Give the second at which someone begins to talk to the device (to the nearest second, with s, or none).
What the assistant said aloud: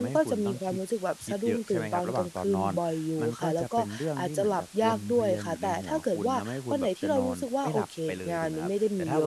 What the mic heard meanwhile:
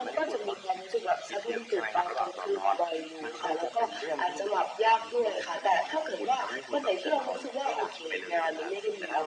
none